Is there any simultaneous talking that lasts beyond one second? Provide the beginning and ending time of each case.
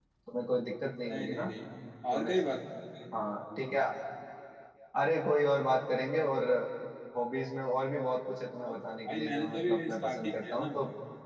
8.7-10.7

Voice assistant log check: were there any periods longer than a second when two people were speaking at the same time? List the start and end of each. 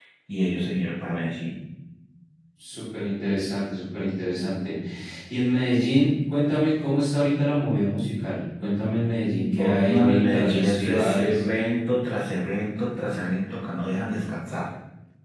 9.4-11.4

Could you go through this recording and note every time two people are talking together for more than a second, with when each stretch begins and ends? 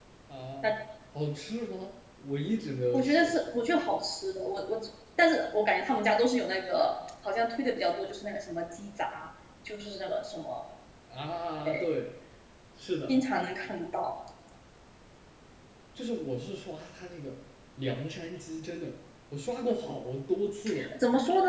none

